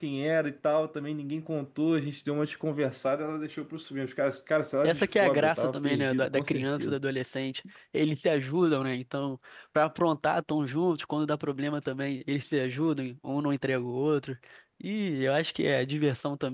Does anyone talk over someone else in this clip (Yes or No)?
Yes